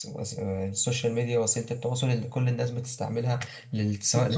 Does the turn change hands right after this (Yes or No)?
Yes